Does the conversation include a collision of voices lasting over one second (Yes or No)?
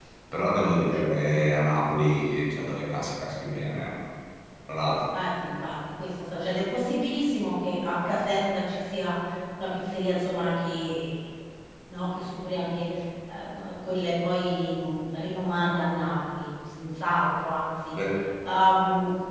No